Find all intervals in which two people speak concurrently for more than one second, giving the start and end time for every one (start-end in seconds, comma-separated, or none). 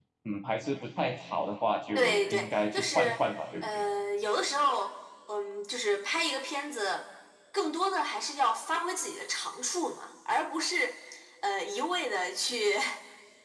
1.9-3.2